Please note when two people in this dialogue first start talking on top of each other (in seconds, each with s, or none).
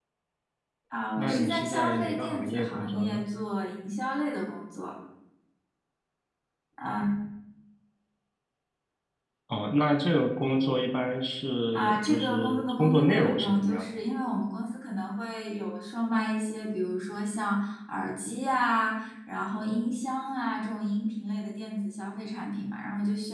1.2 s